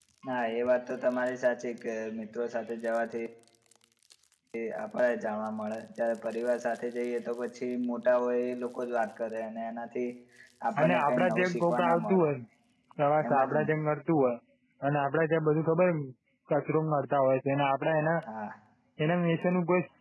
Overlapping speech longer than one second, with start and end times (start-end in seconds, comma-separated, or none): 10.8-12.3